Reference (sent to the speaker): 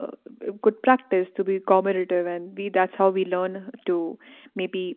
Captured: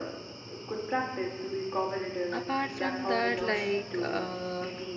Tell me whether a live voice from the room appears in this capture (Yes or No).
Yes